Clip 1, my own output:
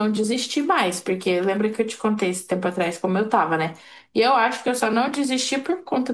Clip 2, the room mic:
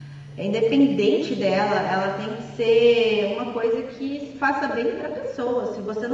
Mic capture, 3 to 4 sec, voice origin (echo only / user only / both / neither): user only